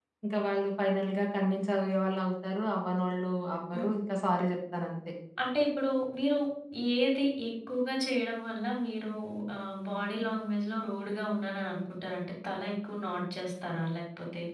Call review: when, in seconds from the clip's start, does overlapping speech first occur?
none

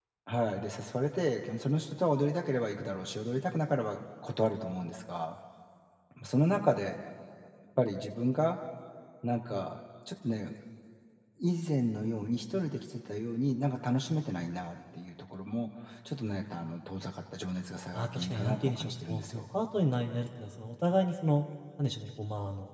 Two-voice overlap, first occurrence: 18 s

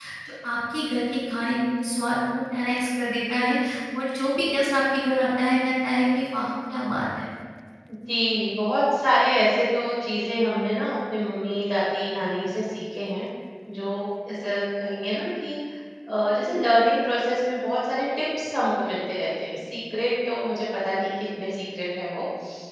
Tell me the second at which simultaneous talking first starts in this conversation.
none

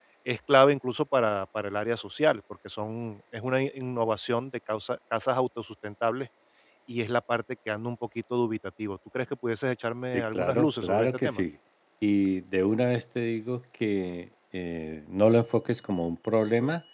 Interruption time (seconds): 10 s

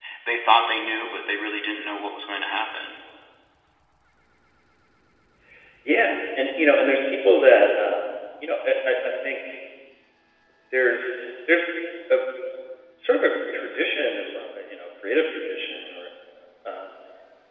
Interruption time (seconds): none

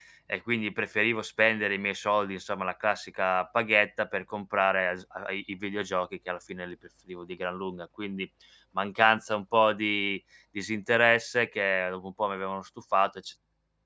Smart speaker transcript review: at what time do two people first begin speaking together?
none

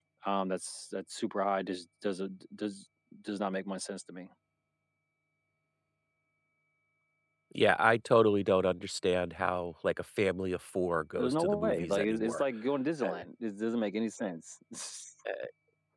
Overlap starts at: 11 s

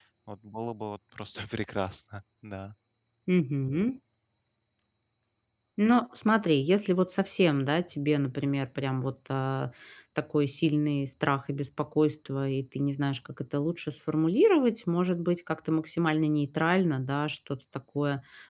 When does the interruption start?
none

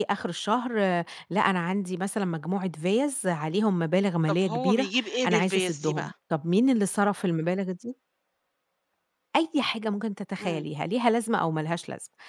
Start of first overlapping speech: 4 s

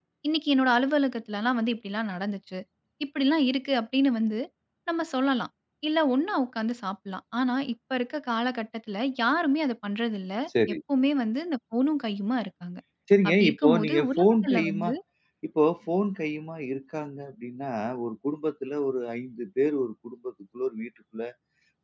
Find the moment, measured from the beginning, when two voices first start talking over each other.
13 s

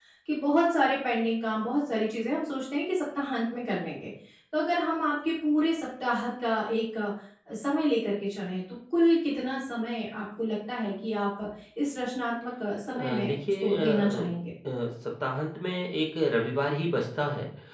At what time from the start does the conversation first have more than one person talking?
13 s

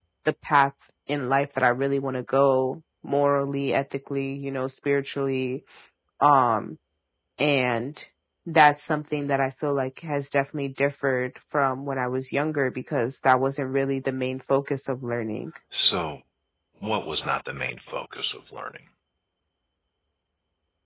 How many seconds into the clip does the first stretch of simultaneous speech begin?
none

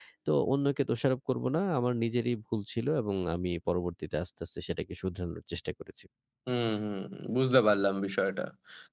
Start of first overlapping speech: none

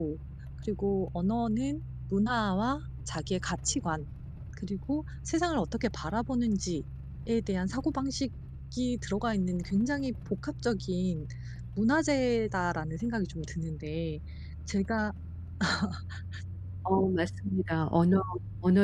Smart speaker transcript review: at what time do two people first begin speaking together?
none

